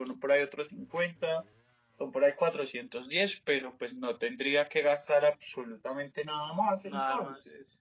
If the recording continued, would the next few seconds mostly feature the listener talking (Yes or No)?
Yes